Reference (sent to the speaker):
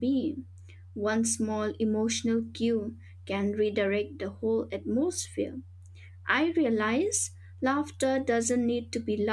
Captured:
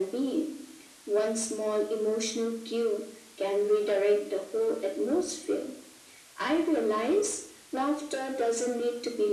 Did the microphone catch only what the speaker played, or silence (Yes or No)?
Yes